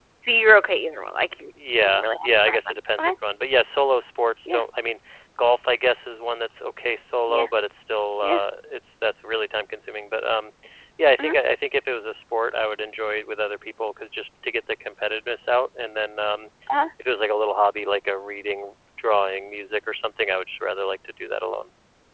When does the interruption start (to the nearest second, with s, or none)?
2 s